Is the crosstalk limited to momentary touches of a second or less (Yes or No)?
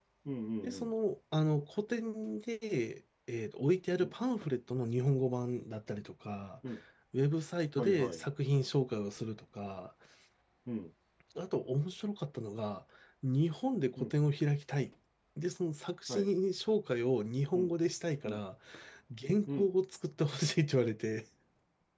Yes